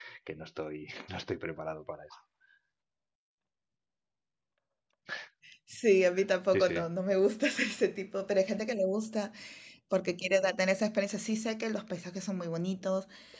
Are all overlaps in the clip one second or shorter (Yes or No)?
Yes